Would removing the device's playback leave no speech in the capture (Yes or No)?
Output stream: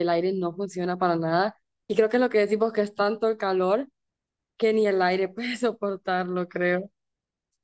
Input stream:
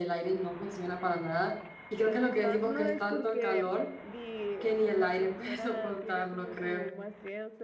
No